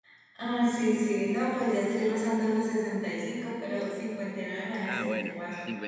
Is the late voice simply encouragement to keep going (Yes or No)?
No